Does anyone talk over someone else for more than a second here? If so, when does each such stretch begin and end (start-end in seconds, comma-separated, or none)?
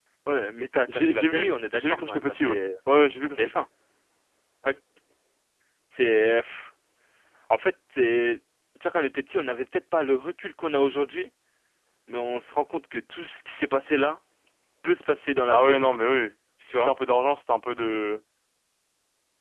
0.9-2.6